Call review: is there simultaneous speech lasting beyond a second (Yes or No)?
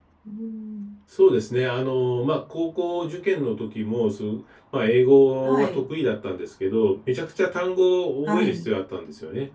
No